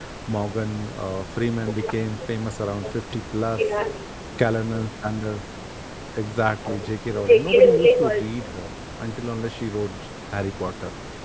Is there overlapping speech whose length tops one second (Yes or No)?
Yes